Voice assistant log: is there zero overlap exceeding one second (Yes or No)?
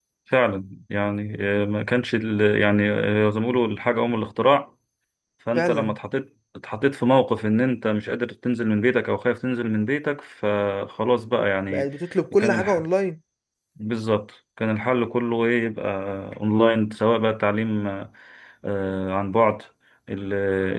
Yes